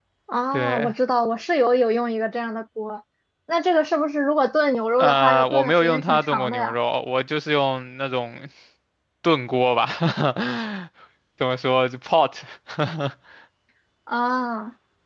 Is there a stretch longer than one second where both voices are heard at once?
Yes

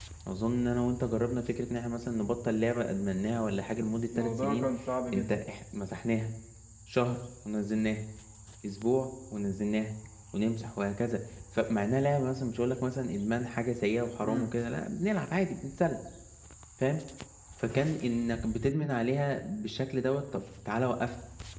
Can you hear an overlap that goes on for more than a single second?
No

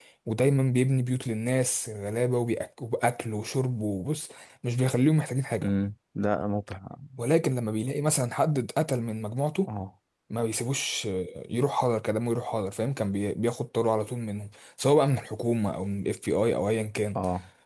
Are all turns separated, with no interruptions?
Yes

